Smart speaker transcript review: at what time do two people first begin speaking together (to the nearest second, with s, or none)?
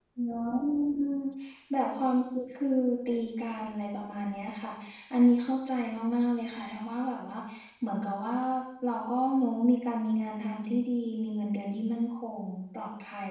none